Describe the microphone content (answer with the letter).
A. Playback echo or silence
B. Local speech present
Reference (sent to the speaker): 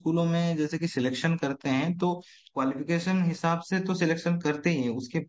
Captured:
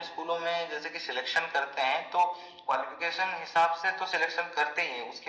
A